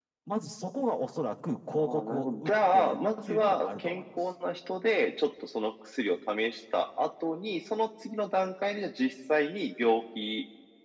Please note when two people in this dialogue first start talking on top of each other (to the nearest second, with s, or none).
2 s